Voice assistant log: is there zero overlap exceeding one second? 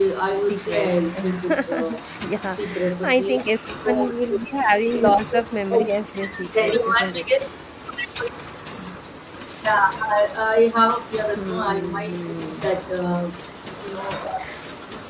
No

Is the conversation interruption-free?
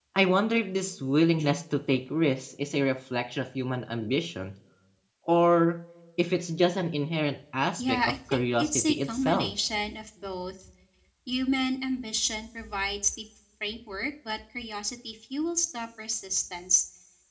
No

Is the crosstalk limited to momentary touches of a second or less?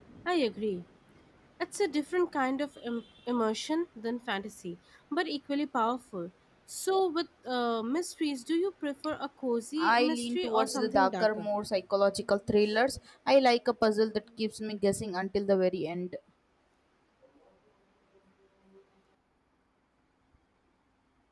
No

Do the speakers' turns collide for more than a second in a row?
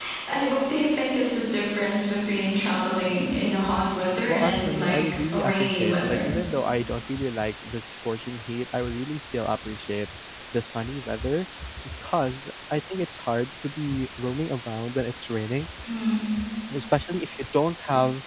Yes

